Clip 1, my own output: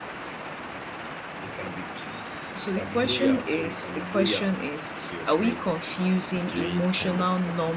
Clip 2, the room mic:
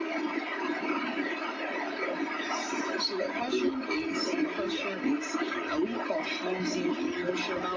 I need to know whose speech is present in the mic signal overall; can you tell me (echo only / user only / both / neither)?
echo only